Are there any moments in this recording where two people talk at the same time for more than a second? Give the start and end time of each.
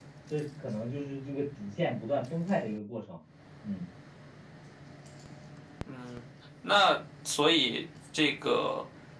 none

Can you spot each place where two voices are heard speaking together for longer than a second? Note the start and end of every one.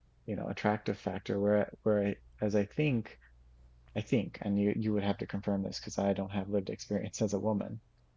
none

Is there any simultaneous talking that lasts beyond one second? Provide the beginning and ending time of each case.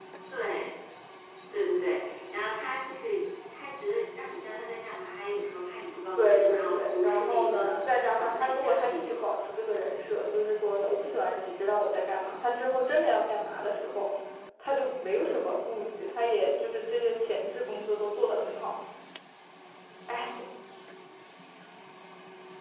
6.2-9.1

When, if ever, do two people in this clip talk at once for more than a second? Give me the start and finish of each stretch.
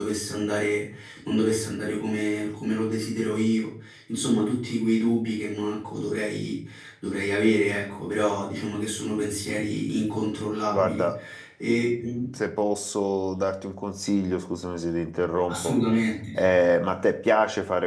none

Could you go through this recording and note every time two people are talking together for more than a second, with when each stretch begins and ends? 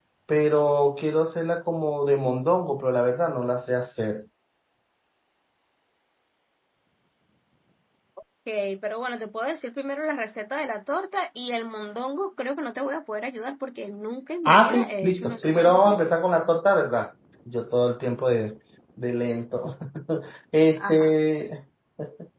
14.4-16.1

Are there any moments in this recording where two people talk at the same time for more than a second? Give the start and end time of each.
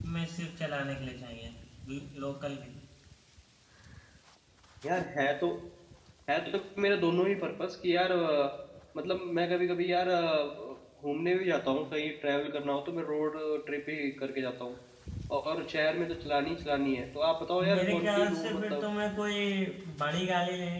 17.6-18.8

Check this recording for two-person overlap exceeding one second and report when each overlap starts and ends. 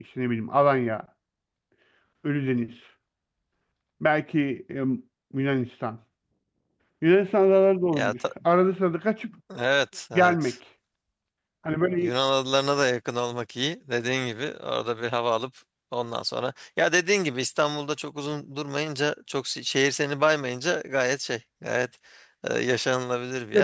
none

